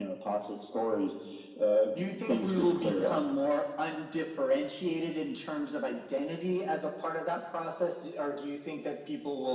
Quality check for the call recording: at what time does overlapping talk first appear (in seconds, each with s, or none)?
1.9 s